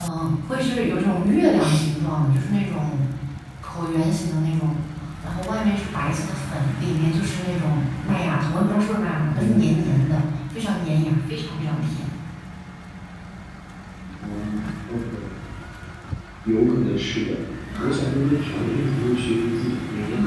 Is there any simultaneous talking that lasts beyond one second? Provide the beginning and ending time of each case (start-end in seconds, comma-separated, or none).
none